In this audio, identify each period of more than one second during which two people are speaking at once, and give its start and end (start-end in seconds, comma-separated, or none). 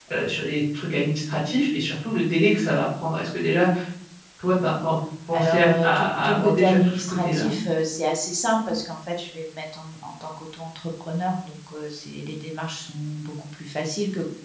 5.3-7.5